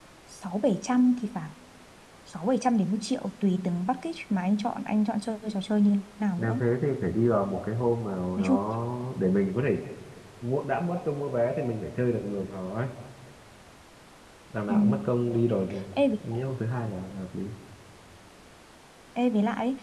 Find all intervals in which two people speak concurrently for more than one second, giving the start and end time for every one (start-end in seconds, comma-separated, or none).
none